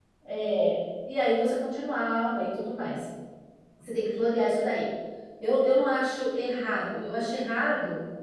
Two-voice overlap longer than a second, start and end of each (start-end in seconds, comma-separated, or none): none